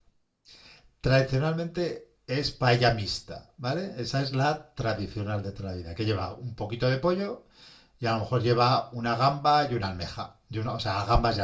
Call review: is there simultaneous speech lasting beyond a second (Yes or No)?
No